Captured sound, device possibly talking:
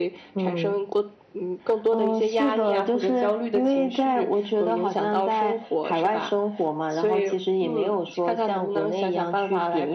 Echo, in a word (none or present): present